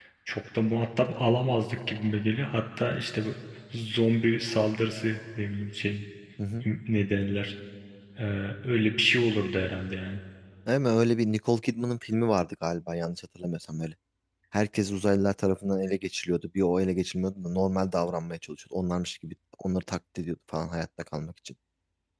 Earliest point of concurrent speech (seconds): none

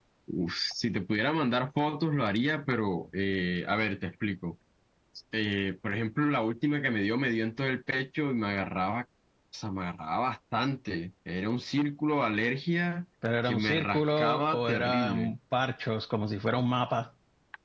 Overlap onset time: 13.5 s

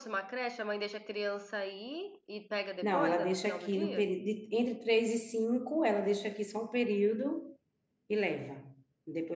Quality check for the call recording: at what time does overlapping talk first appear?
2.8 s

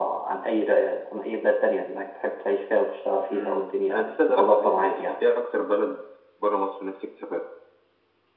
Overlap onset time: 3.3 s

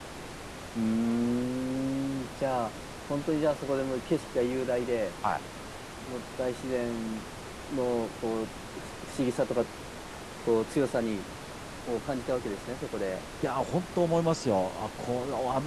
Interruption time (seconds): none

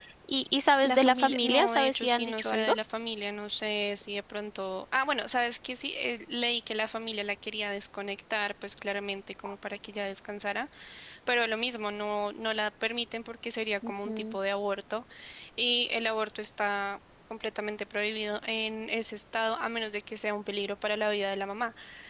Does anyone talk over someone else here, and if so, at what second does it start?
0.8 s

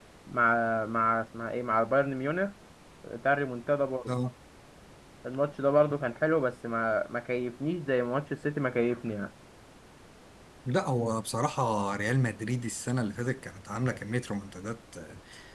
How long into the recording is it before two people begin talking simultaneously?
none

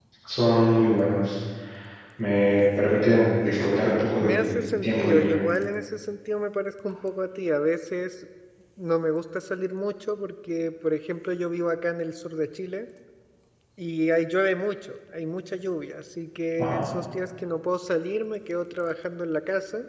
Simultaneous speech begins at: 4.2 s

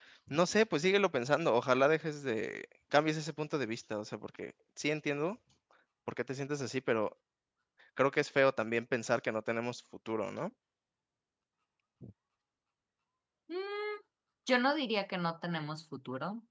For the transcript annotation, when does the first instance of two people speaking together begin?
none

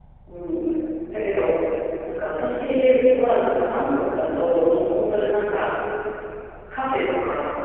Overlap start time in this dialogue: none

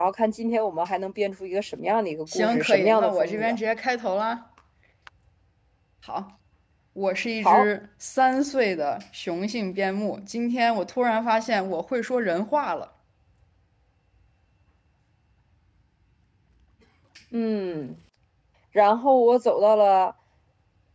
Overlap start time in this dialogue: 2.3 s

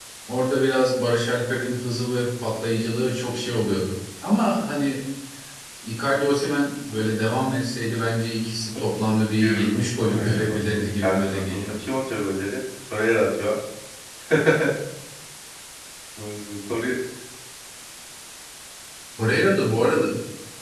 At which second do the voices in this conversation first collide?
9.4 s

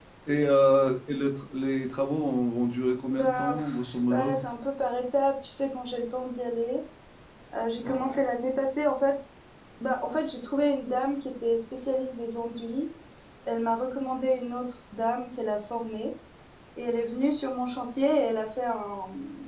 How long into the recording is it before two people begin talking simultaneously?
3.1 s

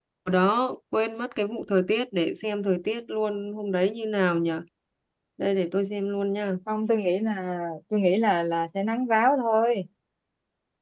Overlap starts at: none

